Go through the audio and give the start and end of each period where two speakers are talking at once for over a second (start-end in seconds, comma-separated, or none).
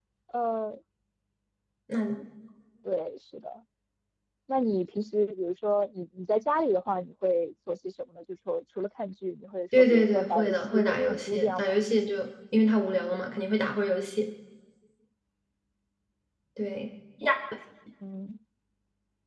9.8-11.8